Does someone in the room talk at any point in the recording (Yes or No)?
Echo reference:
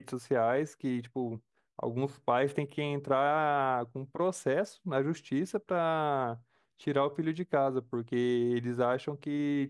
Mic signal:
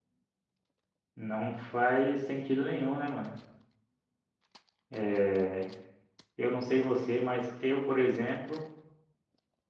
Yes